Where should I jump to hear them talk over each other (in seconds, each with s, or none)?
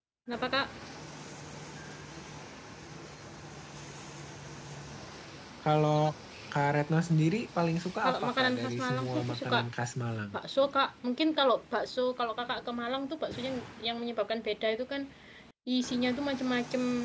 8.0 s